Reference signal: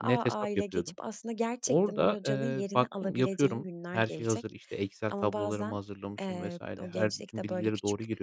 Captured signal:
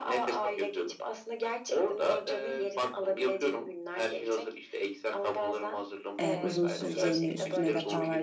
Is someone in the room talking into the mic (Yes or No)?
Yes